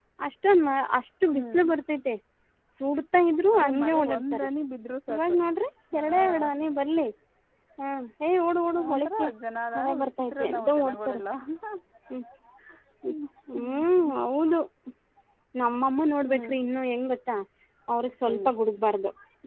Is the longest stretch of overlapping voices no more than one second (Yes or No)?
No